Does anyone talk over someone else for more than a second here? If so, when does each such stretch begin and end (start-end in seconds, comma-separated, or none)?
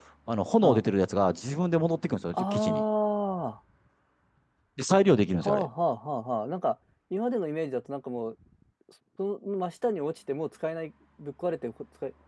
none